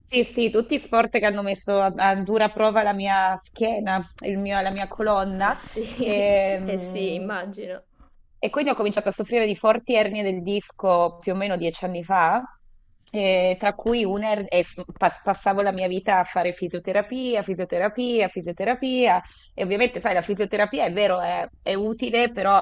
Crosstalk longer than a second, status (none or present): present